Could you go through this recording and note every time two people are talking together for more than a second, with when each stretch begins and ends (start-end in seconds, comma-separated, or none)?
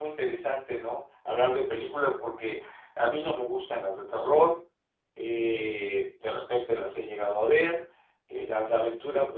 none